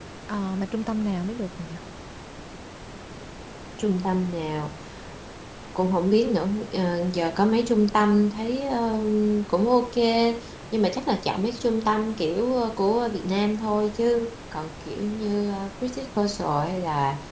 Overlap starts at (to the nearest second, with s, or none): none